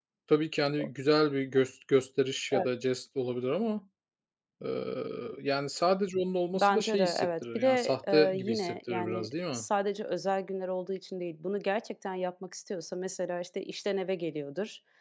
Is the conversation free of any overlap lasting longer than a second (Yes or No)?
No